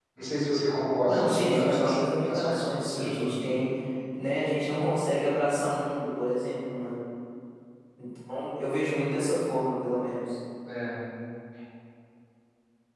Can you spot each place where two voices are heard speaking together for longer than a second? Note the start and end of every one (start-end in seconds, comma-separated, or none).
1.1-3.3